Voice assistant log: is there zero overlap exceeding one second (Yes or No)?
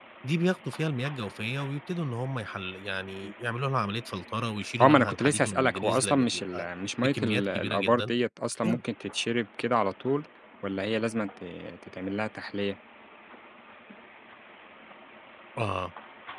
No